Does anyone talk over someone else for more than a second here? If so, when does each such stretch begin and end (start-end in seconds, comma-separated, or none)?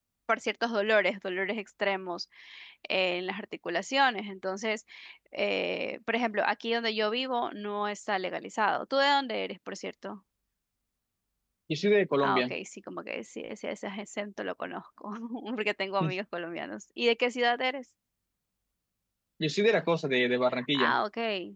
none